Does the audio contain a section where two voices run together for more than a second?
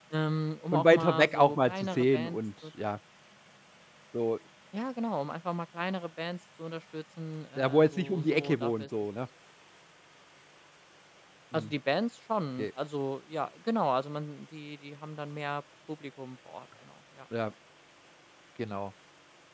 Yes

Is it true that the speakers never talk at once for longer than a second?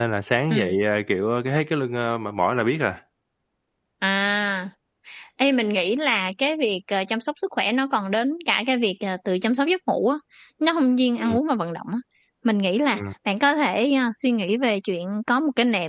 Yes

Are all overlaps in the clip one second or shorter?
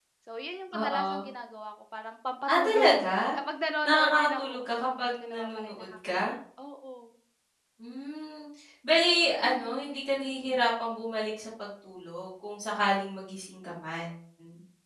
No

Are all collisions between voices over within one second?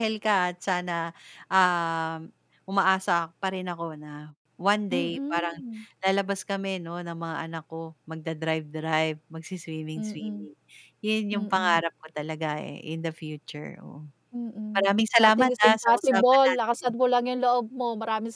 No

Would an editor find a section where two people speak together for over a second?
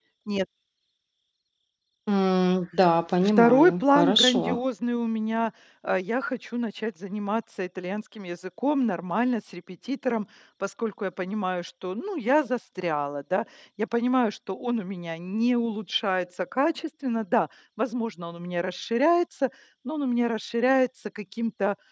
Yes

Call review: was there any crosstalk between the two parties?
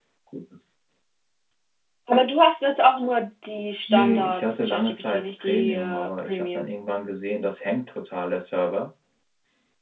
Yes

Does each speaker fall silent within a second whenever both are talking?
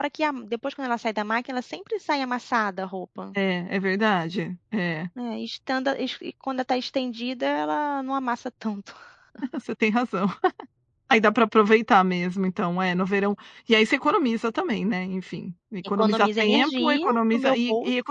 No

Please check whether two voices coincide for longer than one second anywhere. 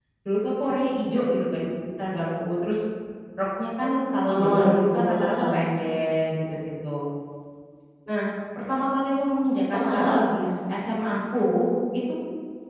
Yes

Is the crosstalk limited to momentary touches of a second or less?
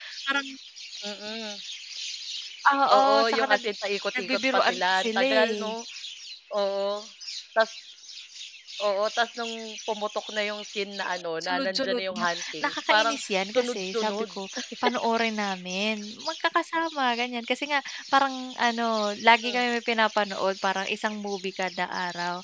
No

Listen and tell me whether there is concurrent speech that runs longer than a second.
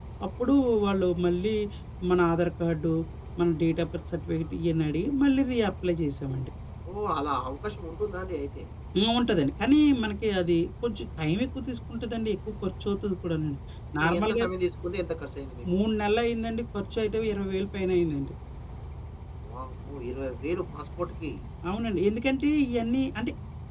No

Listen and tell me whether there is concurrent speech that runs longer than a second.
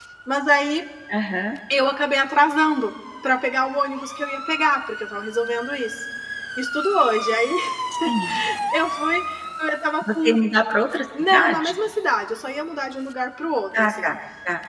No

